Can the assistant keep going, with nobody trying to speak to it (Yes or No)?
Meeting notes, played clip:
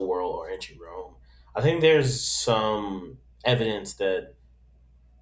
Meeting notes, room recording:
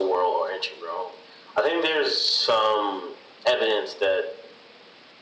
Yes